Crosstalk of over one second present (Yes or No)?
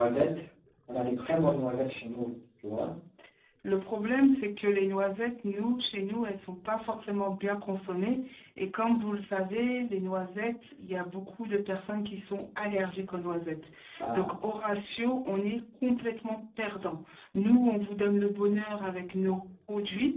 No